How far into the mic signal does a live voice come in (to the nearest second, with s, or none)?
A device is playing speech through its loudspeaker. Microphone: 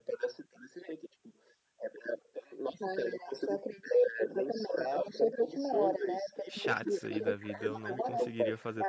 6 s